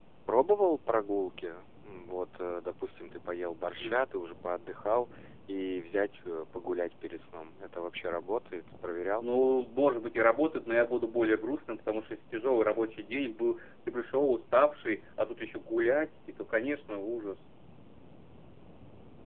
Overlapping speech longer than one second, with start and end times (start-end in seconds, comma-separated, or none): none